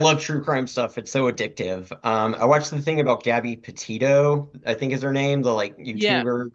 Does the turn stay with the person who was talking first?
Yes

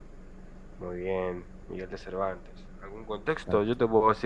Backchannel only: Yes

